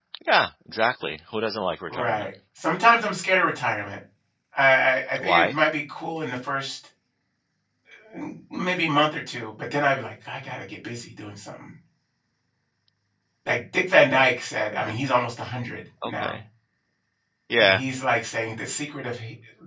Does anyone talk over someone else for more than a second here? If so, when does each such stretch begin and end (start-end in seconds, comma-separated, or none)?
none